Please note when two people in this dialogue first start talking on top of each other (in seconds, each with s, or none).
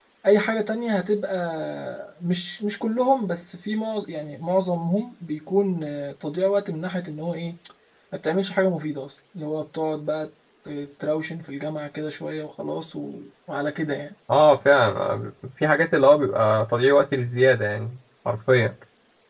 none